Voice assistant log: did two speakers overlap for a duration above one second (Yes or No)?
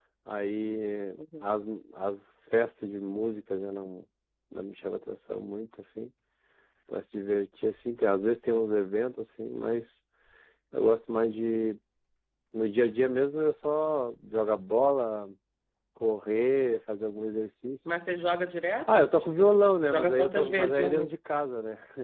Yes